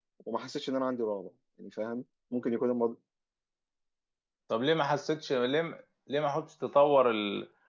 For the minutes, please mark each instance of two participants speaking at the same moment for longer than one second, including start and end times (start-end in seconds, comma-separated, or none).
none